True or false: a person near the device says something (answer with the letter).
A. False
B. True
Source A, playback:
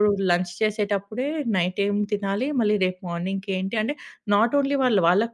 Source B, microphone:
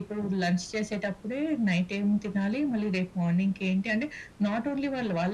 A